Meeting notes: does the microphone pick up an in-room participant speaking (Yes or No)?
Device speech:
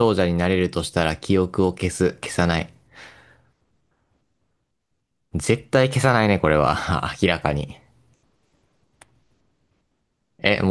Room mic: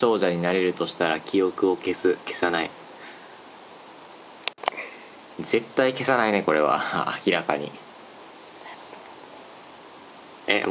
No